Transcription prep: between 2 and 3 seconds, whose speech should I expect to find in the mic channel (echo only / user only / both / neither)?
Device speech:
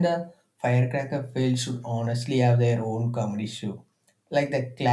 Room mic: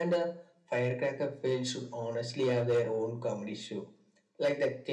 echo only